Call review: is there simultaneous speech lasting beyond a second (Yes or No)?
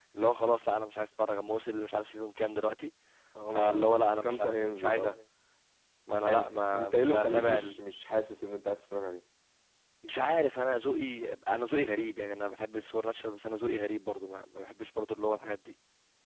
Yes